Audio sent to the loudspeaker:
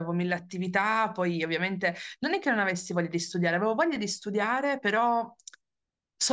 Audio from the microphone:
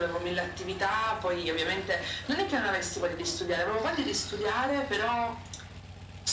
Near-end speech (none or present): none